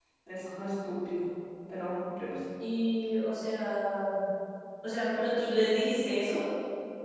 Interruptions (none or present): none